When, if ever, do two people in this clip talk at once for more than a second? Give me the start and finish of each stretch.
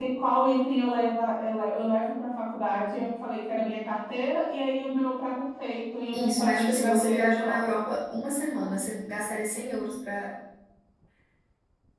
6.1-7.8

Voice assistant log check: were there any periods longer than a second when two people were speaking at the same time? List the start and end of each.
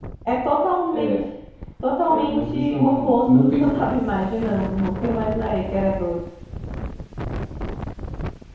2.0-4.0

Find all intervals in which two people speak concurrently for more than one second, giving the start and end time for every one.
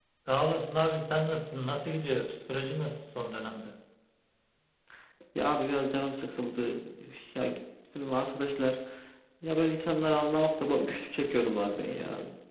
none

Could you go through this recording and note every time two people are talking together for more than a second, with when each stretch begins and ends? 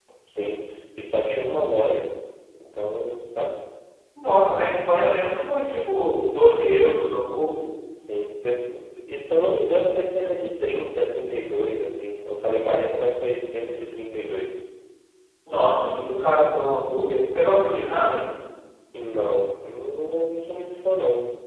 none

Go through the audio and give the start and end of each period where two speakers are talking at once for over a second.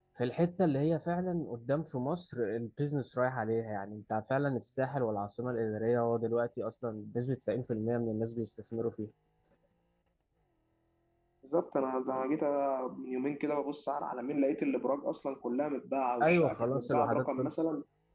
16.2-17.5

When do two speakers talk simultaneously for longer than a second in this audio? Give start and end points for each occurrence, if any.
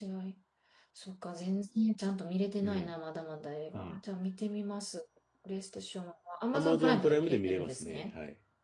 6.5-8.0

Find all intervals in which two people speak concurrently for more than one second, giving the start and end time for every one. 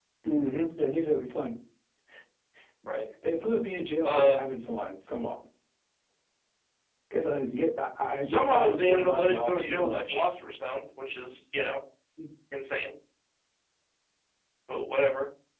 8.2-10.2

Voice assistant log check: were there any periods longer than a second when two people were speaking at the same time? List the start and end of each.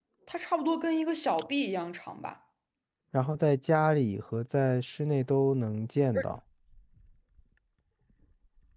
none

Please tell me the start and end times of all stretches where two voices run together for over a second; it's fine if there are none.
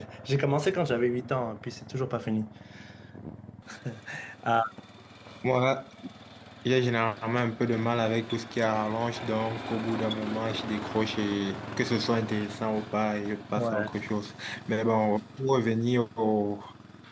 none

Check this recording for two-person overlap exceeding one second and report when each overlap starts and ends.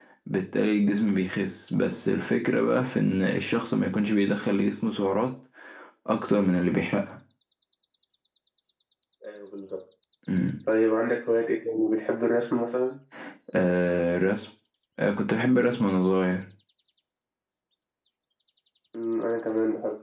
none

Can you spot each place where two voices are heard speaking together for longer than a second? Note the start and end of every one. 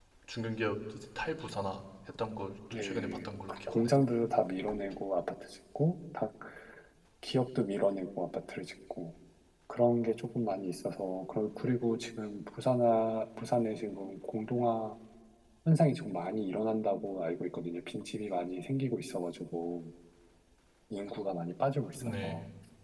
2.7-4.0

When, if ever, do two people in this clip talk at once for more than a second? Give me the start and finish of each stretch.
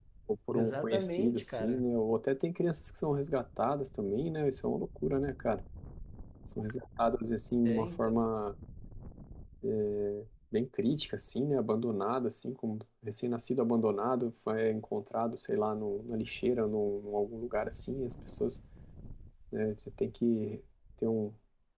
0.5-1.9

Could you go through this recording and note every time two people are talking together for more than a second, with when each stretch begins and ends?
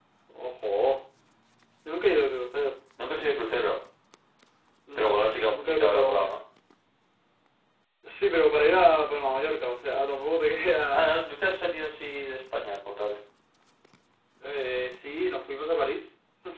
5.0-6.4

